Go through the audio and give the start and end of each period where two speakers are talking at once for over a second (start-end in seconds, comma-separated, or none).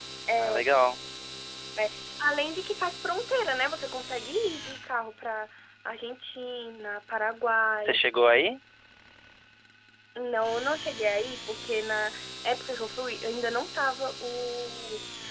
none